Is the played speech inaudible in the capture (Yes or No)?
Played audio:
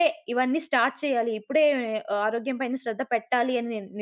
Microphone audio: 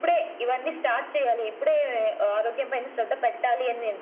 No